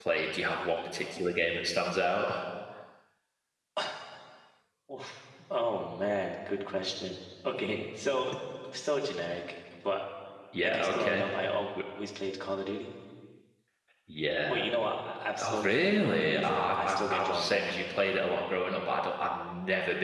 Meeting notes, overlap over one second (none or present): present